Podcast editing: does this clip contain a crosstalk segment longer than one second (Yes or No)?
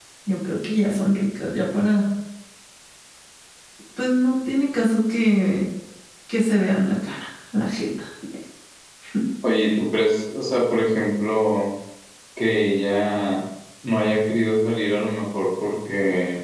No